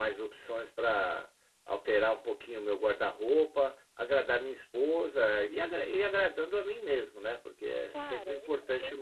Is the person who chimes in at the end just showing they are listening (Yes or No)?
No